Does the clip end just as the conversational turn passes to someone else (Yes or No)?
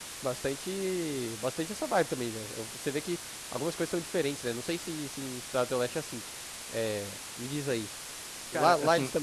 No